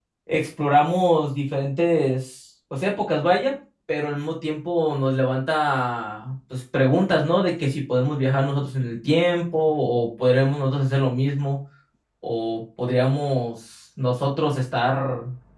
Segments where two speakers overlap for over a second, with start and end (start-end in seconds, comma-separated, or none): none